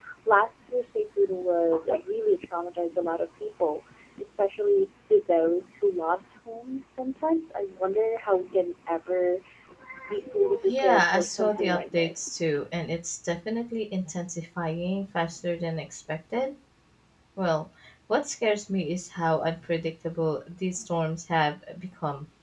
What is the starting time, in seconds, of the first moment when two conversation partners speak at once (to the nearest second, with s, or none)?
11 s